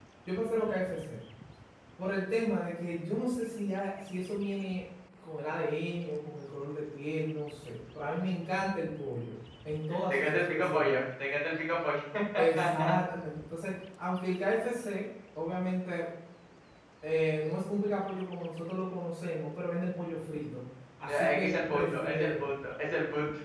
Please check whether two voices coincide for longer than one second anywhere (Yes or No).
Yes